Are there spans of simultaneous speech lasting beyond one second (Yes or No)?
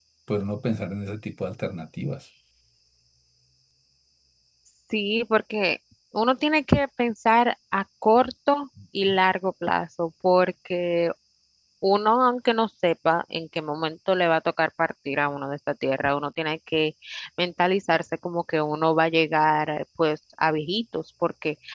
No